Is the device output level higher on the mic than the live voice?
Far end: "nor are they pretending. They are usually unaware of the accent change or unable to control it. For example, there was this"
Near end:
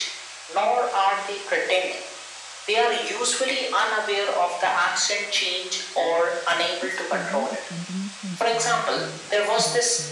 Yes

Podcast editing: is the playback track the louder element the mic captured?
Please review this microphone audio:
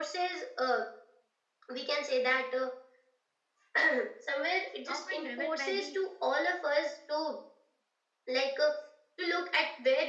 Yes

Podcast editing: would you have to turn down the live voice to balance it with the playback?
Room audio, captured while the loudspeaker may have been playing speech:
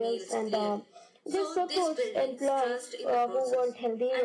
No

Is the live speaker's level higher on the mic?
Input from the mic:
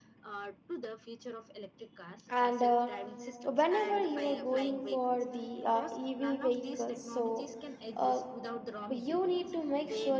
Yes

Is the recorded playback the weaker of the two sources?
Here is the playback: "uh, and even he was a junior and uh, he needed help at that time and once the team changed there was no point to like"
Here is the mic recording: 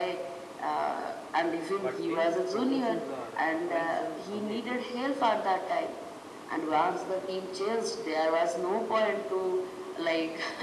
No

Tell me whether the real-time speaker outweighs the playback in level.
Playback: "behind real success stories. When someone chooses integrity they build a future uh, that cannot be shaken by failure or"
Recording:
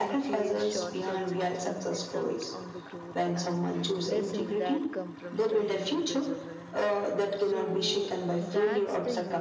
No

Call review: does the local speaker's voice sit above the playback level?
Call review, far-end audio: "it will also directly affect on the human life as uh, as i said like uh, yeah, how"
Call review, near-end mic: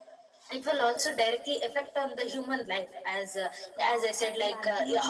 No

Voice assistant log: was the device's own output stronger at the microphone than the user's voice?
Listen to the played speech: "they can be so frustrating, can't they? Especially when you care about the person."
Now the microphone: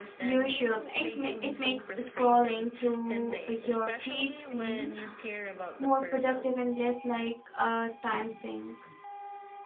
No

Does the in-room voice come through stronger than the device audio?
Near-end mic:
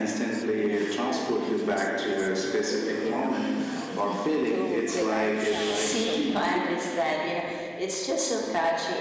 No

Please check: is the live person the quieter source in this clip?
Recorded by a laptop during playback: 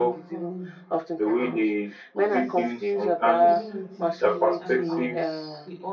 Yes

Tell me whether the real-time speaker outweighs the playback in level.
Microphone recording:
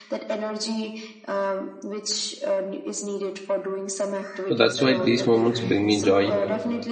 Yes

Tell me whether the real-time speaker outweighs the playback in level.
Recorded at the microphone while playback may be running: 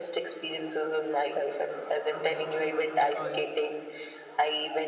No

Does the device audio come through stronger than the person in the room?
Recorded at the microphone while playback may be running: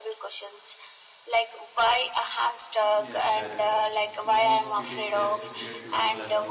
Yes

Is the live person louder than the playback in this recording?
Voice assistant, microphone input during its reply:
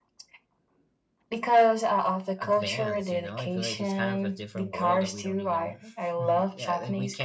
No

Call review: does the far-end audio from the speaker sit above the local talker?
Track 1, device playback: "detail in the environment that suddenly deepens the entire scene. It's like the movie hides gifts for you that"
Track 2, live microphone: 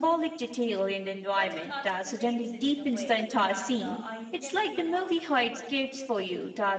Yes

